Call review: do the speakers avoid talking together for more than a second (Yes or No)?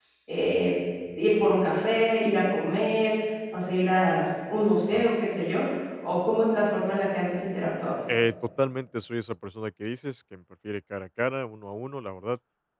Yes